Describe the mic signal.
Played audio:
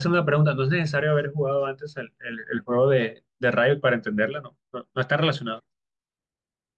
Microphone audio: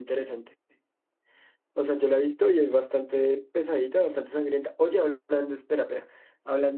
user only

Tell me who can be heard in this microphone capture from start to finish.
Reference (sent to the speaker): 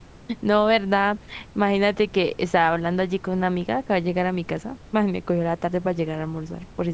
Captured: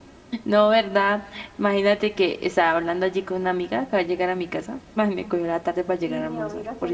both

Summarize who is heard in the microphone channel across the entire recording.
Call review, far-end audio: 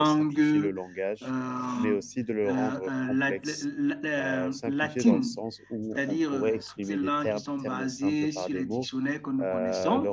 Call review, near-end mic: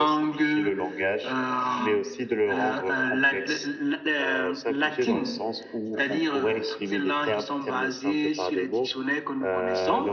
echo only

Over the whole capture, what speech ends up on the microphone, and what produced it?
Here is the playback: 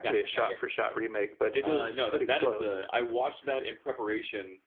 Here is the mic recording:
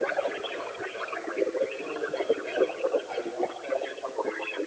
echo only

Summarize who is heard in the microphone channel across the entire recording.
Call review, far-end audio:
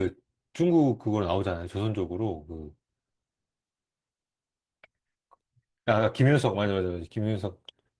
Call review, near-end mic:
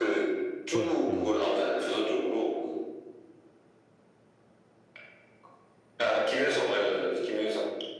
both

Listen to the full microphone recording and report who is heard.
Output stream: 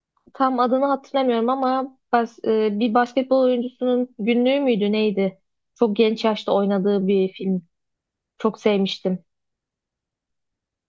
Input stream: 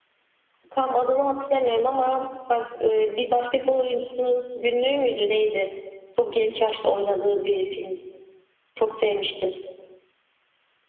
echo only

